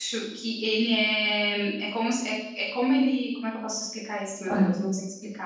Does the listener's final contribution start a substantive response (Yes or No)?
No